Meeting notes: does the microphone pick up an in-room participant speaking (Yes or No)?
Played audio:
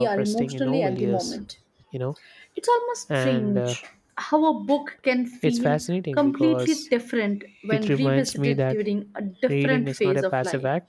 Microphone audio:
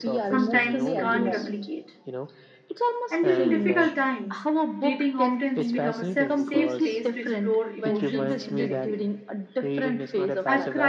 Yes